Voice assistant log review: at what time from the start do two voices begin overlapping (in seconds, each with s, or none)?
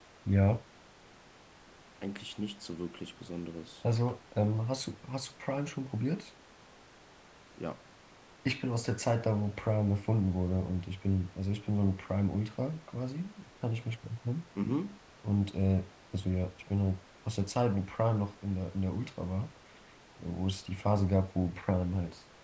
none